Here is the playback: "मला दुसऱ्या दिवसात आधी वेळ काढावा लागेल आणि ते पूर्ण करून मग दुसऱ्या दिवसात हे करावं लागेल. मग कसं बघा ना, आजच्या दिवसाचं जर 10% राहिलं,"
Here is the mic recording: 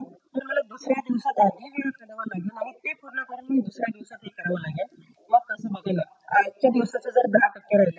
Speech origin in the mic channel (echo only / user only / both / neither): echo only